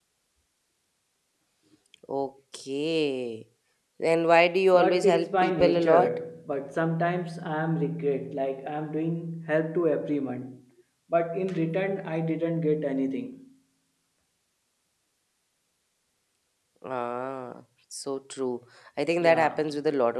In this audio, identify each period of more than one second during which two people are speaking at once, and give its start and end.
4.7-6.2

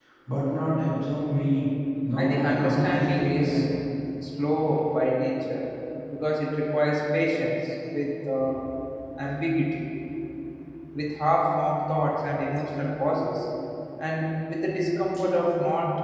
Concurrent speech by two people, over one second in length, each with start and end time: 2.2-3.6

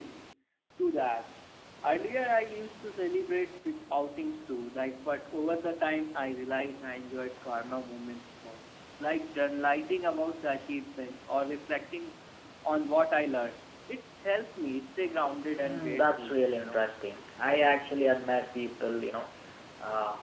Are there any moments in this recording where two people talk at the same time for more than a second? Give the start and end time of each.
15.6-16.8

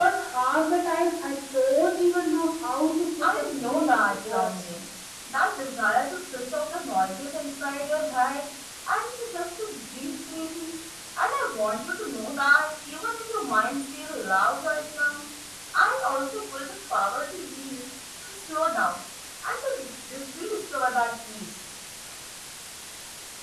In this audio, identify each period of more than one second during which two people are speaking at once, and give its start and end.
3.2-4.6

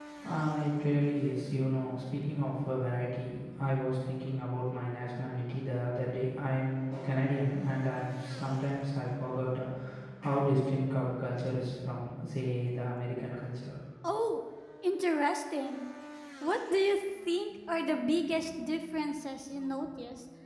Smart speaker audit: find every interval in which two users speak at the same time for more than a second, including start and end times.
none

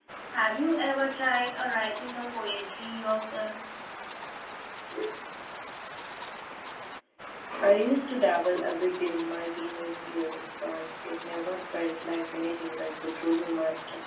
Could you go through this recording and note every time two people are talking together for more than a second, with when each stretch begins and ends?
none

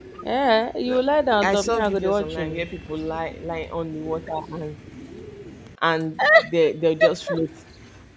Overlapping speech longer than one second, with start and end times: 1.4-2.6

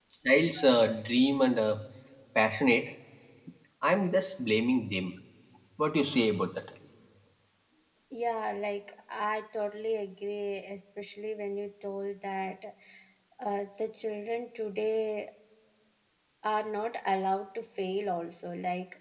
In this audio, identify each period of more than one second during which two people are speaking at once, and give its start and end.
none

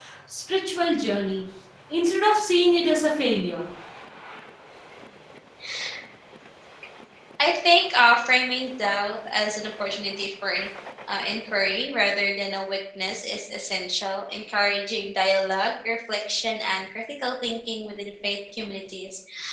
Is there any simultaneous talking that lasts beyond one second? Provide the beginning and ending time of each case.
none

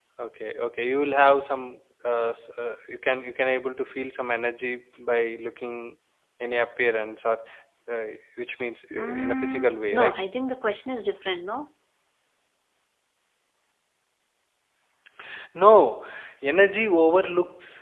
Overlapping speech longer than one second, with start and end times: 8.9-10.2

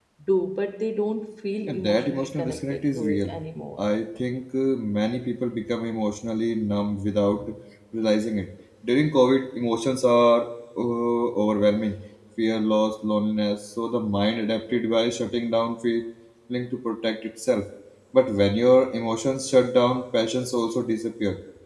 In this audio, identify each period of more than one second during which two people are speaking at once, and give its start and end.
1.7-3.3

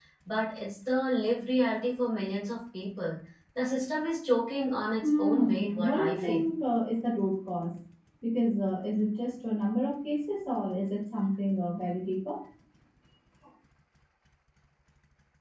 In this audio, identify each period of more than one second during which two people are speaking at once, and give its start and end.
5.0-6.5

